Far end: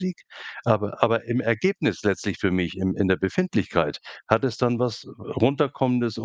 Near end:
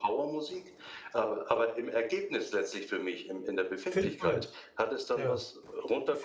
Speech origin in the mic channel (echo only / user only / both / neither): both